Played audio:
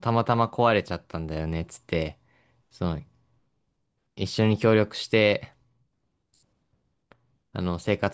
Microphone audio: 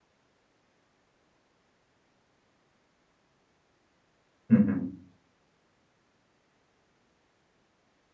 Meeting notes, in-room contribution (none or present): present